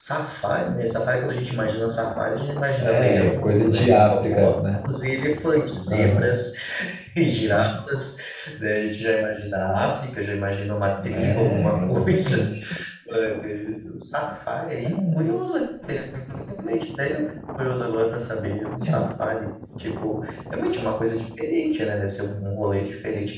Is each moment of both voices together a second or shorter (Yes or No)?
No